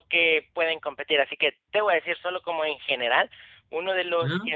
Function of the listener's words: listening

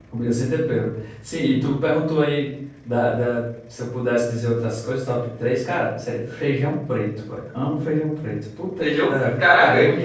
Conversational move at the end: taking over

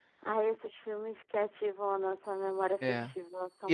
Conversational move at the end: taking over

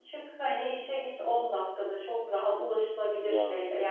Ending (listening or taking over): listening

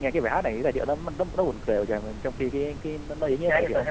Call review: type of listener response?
taking over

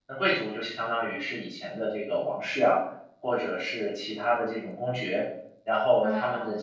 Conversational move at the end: listening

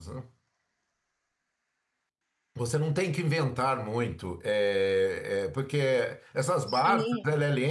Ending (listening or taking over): listening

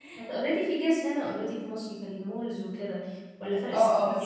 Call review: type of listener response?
taking over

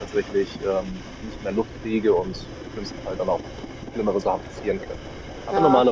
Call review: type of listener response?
listening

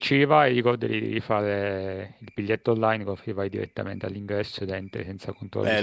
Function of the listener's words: taking over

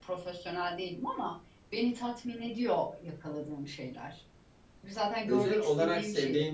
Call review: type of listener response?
taking over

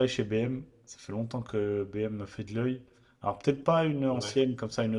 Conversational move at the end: listening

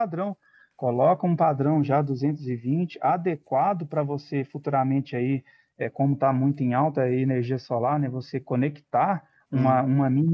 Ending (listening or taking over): listening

